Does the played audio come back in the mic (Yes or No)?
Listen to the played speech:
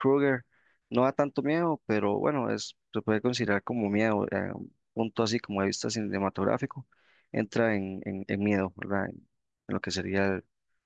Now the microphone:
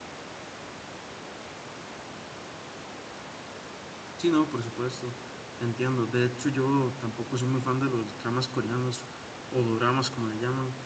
No